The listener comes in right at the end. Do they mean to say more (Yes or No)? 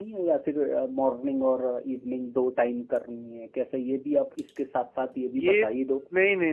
Yes